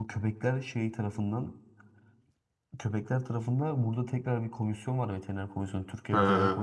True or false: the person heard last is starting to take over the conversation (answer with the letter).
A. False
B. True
A